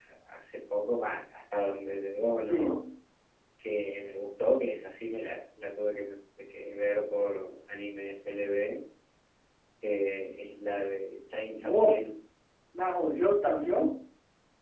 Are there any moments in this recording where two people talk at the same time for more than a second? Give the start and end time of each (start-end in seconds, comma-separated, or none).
none